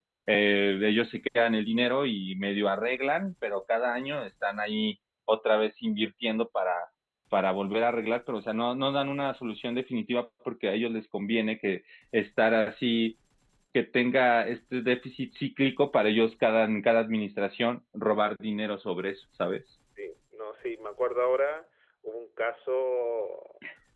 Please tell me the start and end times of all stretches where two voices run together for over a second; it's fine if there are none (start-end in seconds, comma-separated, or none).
none